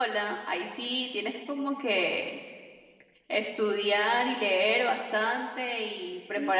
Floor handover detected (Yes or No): Yes